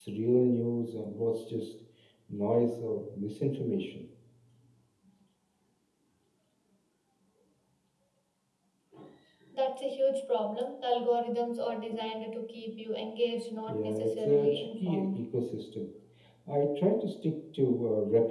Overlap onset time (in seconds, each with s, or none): 13.7 s